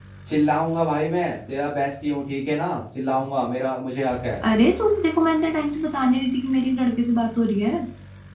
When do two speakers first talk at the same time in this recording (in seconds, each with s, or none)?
none